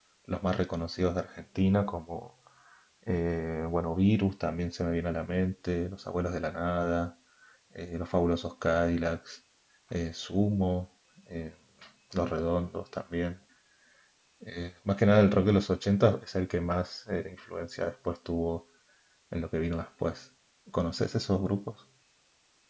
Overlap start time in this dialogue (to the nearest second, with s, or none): none